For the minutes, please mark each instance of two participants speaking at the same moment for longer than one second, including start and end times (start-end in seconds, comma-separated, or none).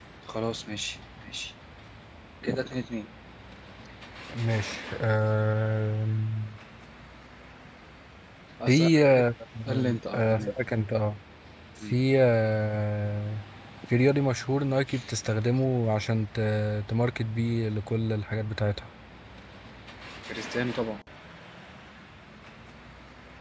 none